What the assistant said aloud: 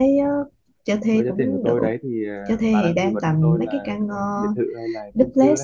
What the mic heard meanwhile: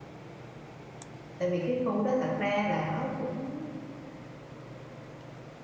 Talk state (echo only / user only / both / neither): user only